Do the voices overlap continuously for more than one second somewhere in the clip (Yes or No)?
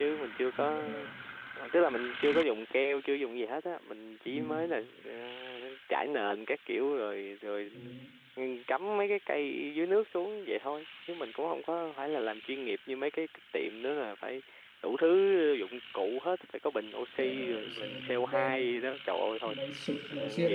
Yes